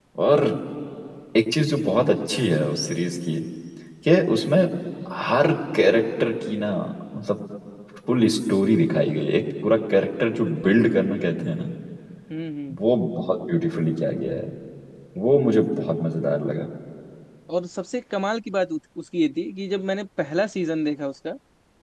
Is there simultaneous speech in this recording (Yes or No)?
No